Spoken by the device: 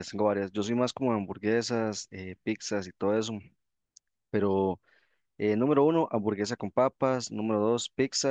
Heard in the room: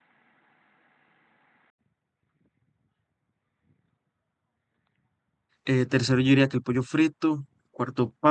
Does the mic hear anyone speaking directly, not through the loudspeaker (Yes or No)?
Yes